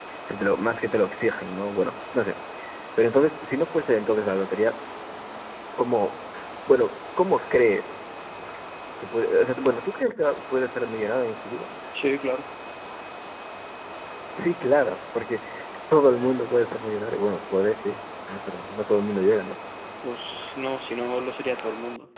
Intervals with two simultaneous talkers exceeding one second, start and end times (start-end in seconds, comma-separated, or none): none